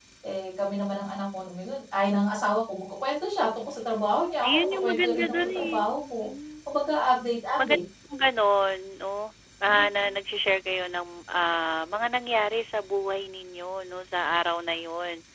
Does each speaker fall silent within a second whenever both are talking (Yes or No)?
No